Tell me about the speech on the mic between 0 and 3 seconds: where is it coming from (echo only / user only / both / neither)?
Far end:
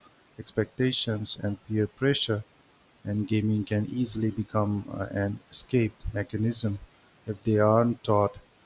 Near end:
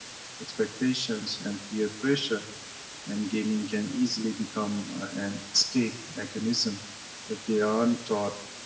echo only